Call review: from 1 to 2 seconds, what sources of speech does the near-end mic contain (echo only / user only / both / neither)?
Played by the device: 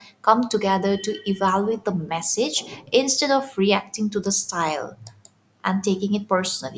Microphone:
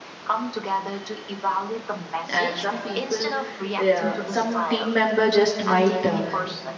echo only